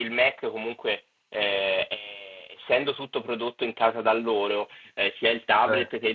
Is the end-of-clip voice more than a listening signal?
No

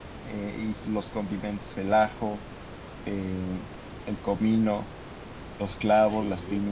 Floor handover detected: Yes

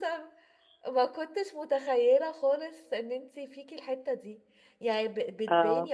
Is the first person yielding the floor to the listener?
No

